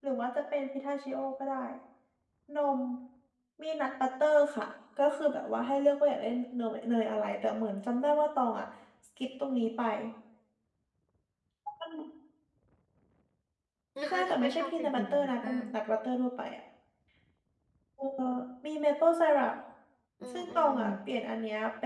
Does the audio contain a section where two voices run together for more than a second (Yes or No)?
Yes